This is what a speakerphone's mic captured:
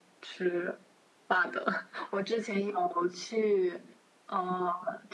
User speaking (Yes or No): No